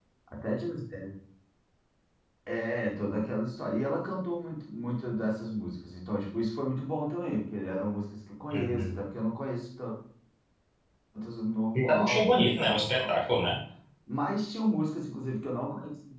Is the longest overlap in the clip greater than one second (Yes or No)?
Yes